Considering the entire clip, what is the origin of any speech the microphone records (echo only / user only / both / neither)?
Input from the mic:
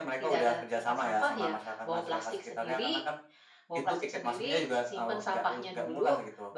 both